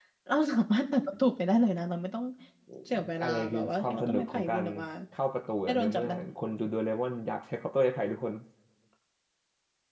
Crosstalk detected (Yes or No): Yes